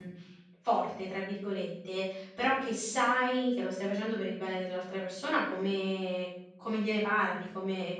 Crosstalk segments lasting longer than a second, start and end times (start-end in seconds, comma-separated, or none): none